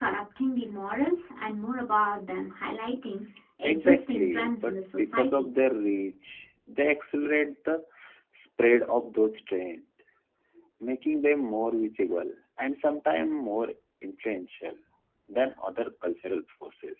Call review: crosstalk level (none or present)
present